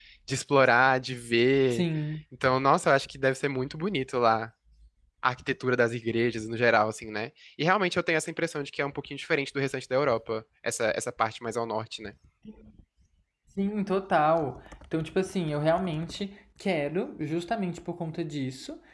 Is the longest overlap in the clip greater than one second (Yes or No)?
No